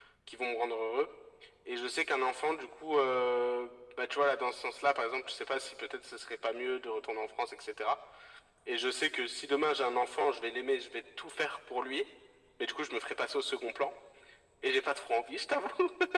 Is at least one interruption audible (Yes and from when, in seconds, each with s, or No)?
No